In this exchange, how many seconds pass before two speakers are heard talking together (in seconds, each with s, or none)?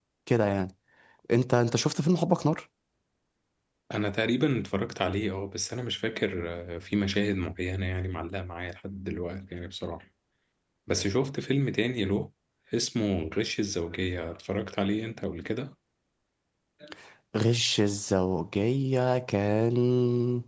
none